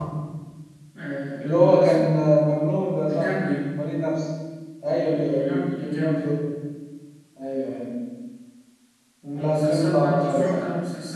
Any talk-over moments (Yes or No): Yes